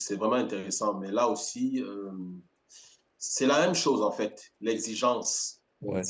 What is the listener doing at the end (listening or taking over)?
taking over